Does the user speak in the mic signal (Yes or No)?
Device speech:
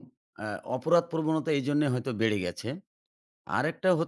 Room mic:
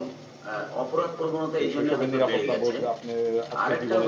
Yes